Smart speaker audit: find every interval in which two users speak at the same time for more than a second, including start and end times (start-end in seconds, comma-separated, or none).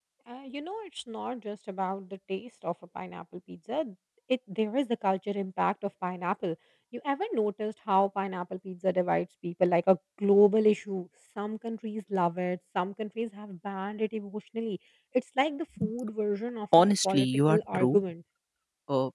16.8-18.0